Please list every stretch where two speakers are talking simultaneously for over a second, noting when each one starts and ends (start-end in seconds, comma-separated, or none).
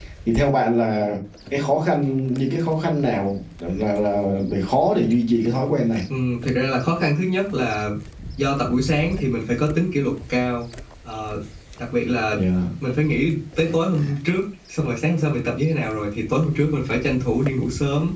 none